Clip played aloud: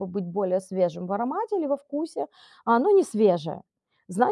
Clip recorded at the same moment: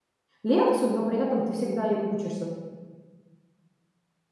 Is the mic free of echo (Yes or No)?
Yes